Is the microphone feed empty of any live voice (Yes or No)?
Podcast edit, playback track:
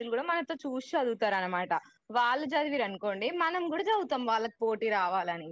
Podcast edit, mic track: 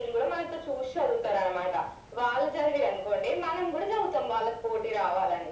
Yes